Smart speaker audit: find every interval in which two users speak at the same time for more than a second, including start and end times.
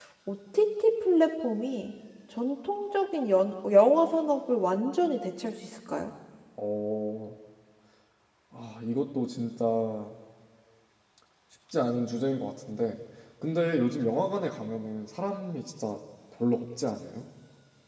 none

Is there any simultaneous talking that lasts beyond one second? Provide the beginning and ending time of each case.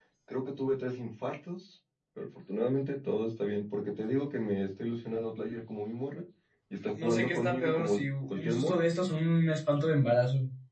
7.0-8.8

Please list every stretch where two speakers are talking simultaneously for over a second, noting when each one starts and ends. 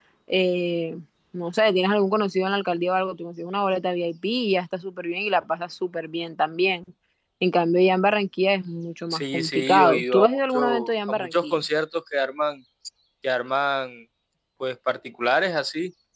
9.1-11.6

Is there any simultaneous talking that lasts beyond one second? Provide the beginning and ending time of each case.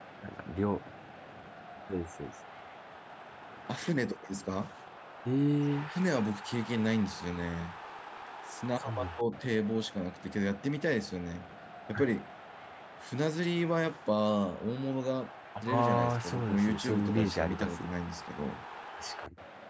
15.6-17.7

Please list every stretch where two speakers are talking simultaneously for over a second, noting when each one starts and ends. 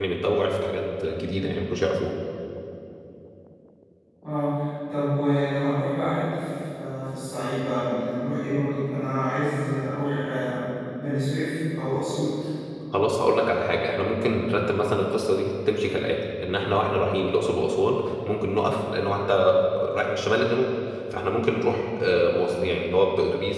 none

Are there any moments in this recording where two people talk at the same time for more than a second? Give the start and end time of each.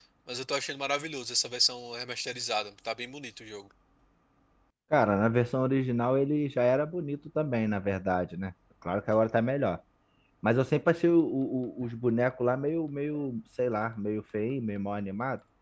none

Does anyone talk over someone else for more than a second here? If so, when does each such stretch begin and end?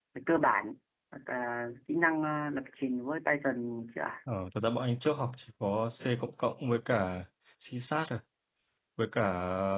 none

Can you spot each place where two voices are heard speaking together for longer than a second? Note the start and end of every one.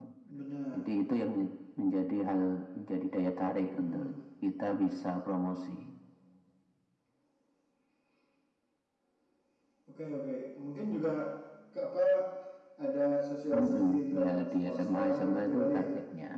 13.5-15.9

